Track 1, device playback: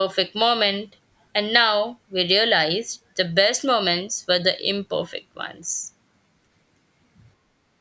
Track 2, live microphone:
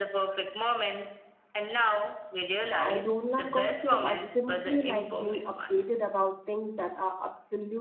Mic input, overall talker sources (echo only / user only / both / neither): both